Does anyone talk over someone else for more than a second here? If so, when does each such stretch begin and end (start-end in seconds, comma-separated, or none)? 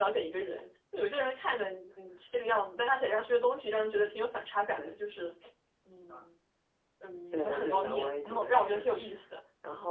7.3-8.9